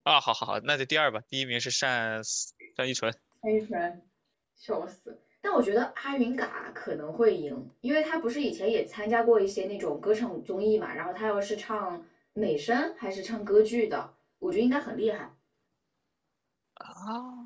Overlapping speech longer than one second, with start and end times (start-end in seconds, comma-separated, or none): none